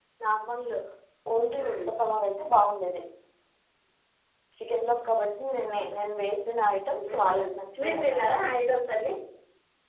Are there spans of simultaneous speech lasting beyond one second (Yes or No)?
No